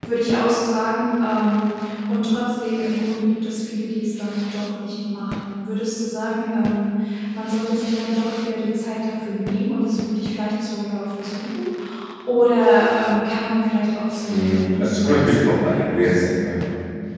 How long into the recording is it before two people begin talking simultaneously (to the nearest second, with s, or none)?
14 s